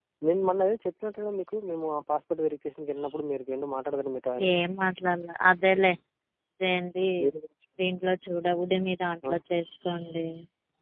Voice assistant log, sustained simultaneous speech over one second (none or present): none